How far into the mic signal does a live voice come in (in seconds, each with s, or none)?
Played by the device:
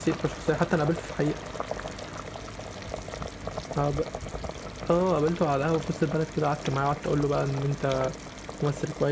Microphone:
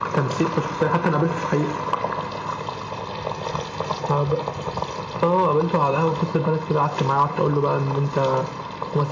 none